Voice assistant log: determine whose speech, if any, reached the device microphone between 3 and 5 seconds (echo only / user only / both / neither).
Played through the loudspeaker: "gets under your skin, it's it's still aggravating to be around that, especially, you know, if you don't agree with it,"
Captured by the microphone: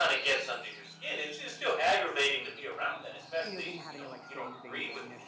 both